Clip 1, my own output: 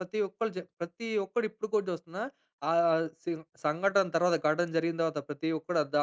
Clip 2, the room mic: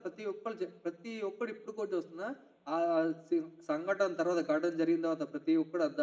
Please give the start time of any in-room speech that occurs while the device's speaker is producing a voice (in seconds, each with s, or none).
none